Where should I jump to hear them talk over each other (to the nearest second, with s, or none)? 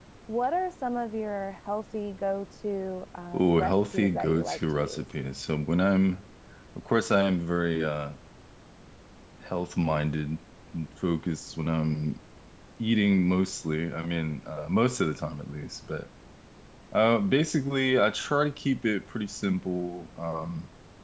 3 s